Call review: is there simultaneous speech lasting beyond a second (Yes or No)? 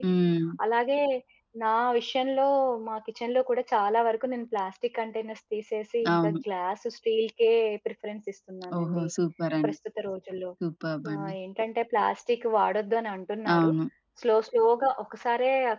No